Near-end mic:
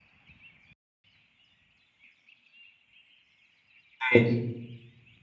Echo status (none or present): none